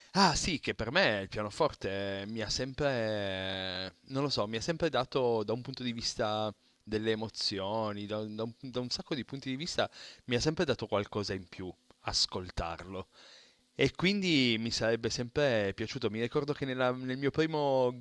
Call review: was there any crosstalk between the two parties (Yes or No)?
No